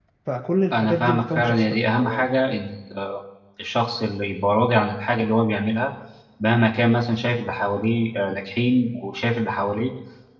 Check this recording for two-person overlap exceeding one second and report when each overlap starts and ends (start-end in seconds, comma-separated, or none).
0.7-2.3